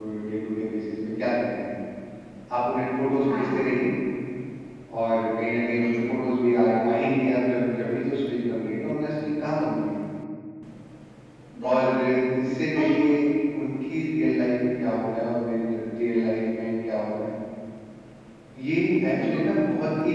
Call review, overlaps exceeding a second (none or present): none